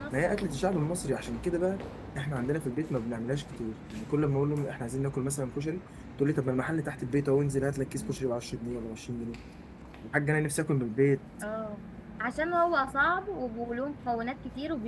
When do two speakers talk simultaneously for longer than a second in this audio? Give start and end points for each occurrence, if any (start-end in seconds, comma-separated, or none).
none